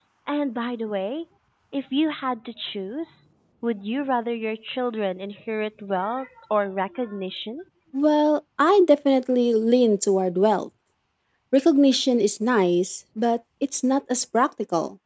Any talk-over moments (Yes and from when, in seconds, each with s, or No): No